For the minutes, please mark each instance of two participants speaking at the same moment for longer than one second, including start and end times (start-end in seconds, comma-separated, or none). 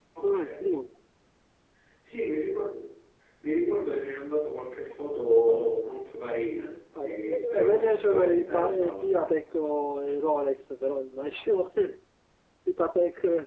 7.0-9.0